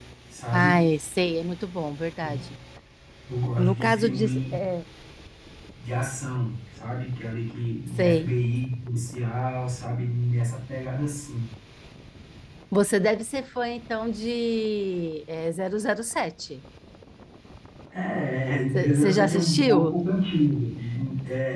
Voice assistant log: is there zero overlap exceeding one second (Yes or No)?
No